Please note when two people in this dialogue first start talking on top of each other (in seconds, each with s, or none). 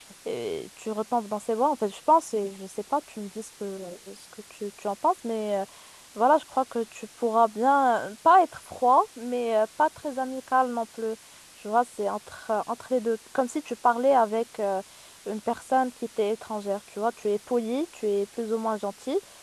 none